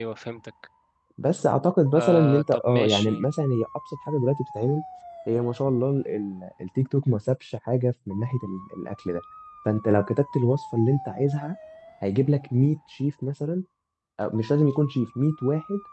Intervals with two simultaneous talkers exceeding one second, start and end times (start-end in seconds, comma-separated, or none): 2.0-3.3